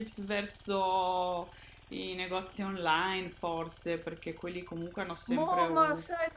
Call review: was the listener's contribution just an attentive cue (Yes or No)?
No